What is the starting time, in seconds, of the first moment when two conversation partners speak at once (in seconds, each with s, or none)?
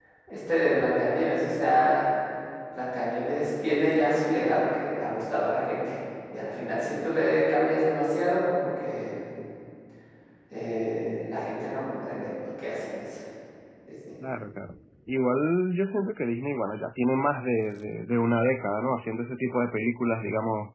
none